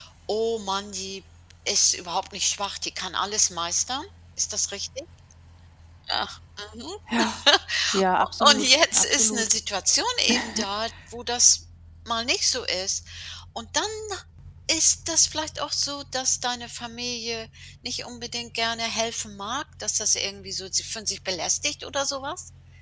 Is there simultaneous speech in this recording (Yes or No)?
Yes